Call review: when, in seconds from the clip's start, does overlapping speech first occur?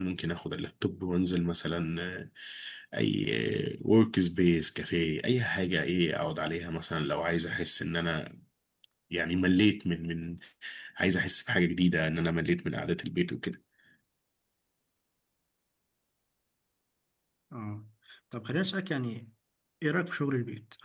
none

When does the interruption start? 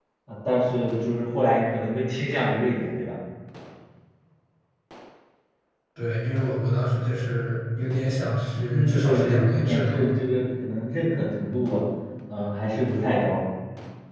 8.7 s

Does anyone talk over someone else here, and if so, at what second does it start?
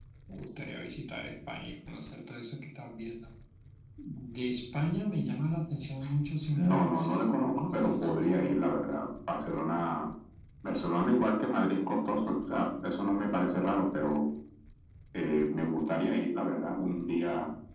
6.6 s

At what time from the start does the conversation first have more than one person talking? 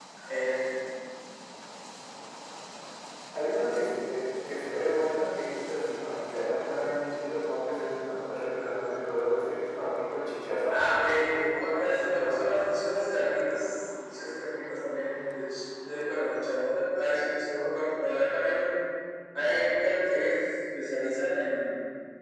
10.7 s

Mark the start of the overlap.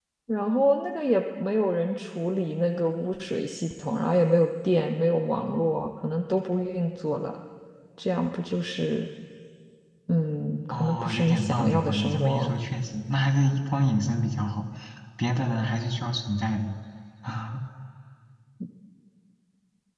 10.7 s

